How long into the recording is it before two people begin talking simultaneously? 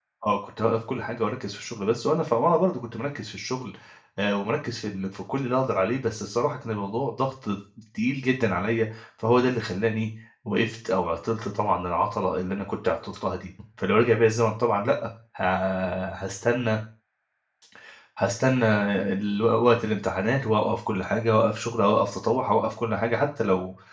none

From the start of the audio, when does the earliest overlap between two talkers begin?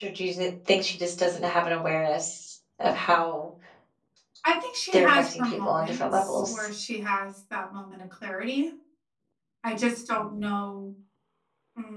4.9 s

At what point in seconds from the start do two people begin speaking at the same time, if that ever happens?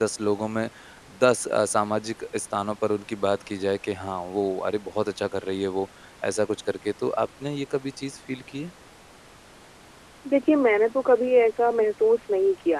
none

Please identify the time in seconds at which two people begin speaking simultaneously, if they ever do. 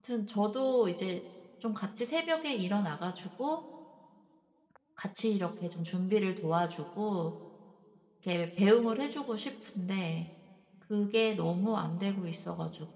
none

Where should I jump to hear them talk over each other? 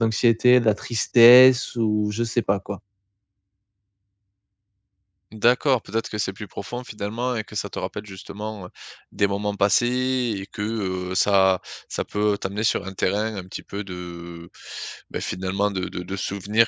none

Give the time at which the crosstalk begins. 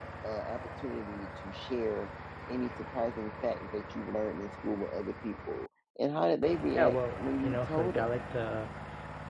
6.8 s

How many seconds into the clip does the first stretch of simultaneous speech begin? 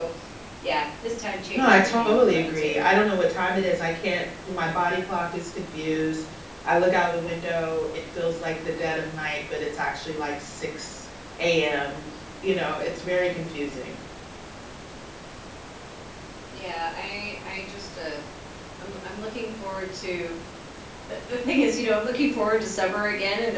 1.5 s

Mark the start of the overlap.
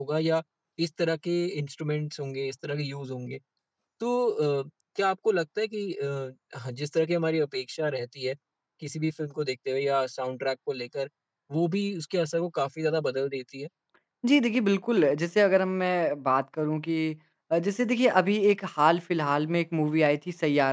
none

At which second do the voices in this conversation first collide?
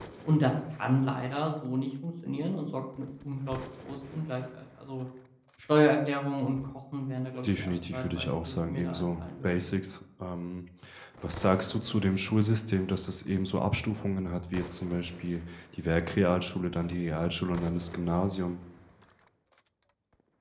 7.4 s

